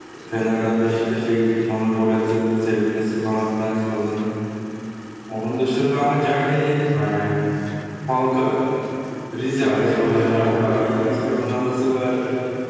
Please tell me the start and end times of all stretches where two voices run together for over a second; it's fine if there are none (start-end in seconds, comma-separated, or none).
9.6-10.8